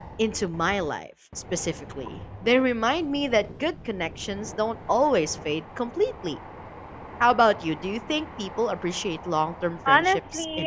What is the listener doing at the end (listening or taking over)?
taking over